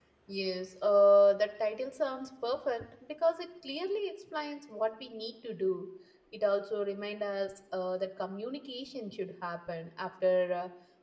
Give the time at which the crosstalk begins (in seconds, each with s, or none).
none